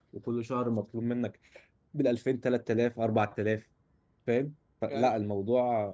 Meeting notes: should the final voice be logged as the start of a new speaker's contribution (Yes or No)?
No